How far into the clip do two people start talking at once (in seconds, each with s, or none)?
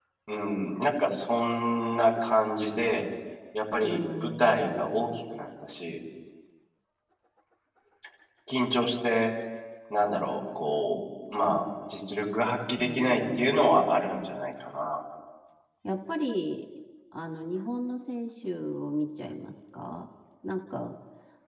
3.8 s